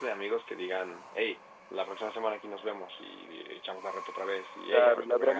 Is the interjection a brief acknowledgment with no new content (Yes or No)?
No